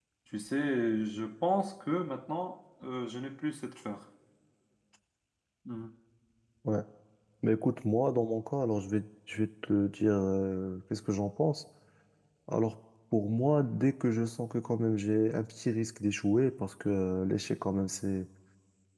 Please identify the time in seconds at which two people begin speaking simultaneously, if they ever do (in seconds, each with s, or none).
none